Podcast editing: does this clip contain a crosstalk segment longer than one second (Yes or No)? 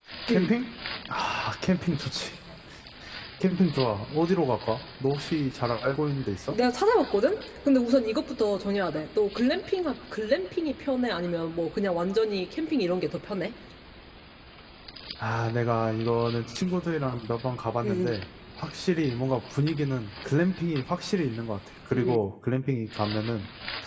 No